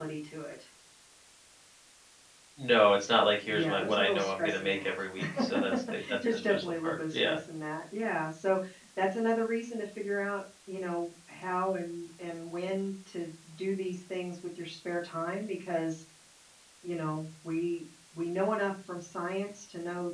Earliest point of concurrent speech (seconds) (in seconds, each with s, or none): 3.5 s